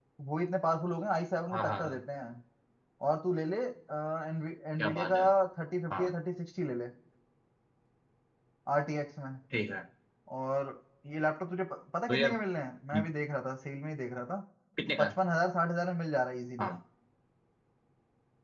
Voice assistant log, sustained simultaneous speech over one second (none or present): none